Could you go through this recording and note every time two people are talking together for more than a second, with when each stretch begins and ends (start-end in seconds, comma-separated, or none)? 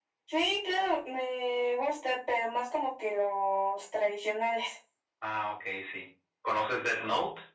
none